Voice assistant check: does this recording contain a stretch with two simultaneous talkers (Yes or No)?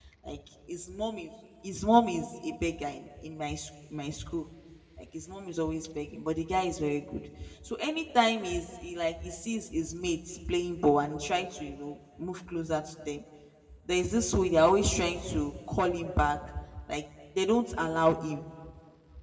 No